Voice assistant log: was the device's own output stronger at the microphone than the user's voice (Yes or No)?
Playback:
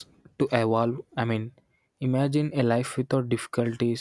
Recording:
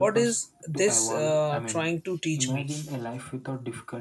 No